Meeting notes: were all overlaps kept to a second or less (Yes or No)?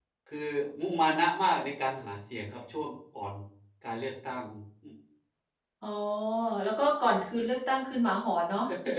Yes